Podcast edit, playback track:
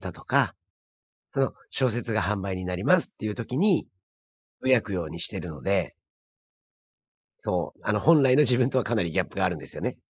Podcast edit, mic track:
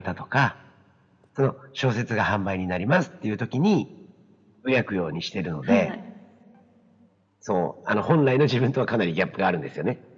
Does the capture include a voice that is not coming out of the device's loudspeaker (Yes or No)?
Yes